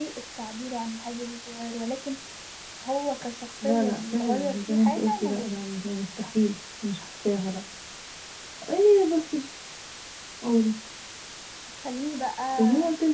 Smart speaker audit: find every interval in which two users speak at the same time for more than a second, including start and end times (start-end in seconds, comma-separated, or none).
3.6-5.6